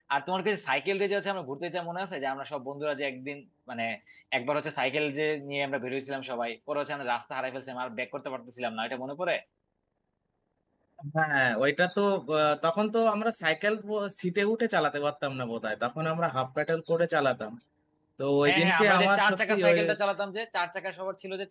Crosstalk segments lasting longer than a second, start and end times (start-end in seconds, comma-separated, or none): 18.4-19.8